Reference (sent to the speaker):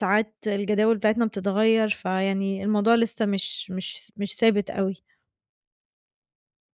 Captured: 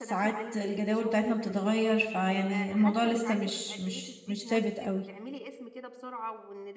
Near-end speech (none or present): present